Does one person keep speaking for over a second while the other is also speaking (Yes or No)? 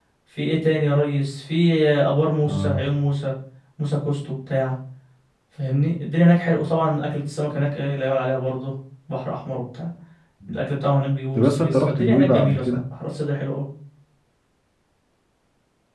Yes